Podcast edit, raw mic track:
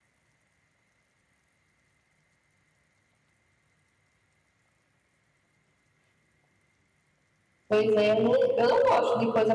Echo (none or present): none